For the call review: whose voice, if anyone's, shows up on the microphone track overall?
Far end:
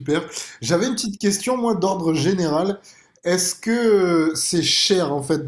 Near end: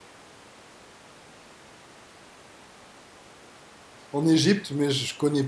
user only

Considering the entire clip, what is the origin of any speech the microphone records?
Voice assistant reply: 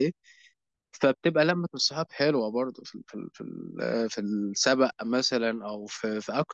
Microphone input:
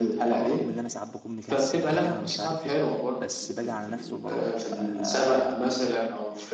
both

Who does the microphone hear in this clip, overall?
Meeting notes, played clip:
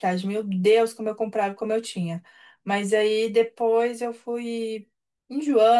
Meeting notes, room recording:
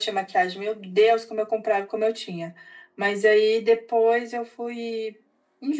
echo only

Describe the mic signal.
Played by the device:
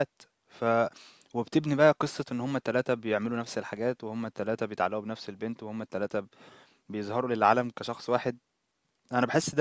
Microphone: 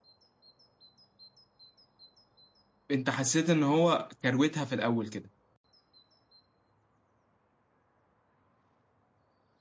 user only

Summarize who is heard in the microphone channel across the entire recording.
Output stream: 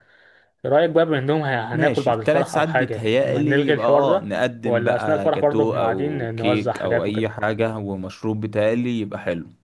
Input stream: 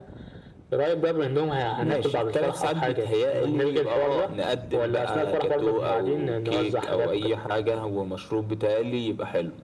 both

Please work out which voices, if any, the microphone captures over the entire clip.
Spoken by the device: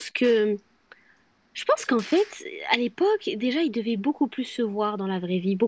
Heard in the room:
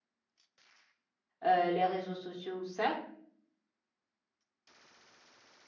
user only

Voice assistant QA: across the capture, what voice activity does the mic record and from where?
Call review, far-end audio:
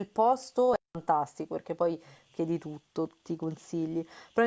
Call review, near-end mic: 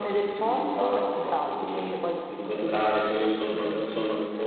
both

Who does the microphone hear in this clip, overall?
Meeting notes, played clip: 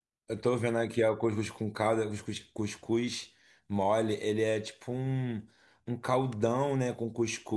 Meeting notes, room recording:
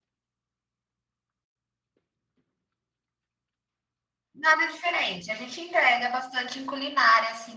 user only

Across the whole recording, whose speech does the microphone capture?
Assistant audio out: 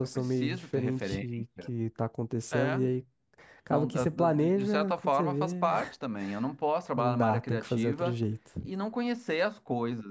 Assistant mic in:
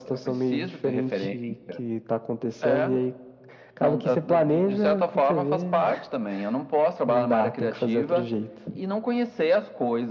echo only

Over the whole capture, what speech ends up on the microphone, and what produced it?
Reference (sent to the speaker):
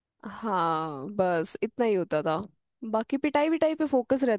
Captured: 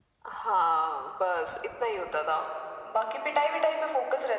echo only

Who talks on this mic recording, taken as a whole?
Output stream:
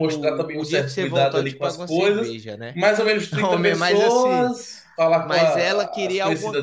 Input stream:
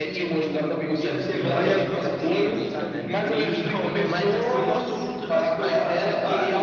both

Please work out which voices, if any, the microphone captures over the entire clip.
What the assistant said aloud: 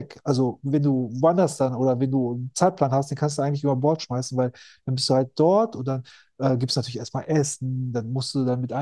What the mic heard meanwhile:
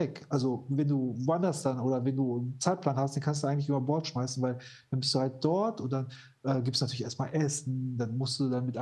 echo only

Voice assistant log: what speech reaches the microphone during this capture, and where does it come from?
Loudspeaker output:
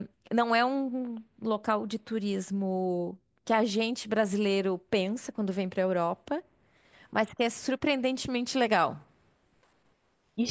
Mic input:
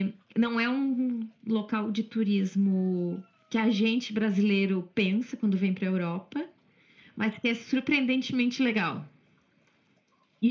echo only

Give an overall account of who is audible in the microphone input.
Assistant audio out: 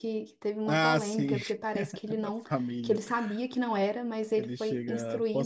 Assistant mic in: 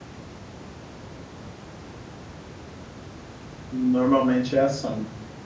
user only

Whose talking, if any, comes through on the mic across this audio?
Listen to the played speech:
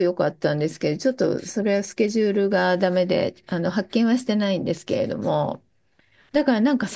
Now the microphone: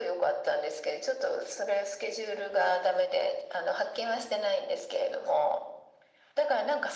echo only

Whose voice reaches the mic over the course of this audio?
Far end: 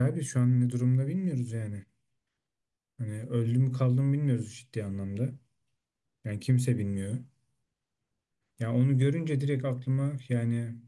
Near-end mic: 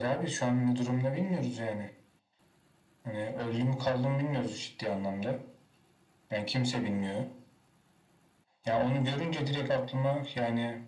echo only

